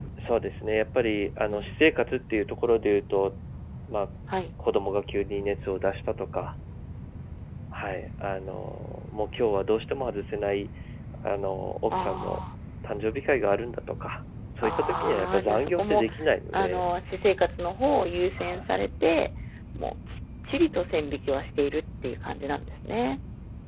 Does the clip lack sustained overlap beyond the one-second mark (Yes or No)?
No